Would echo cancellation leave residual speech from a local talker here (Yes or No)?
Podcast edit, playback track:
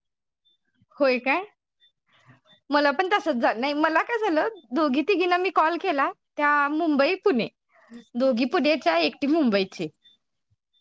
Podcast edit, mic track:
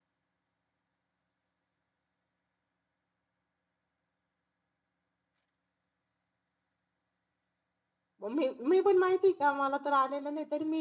Yes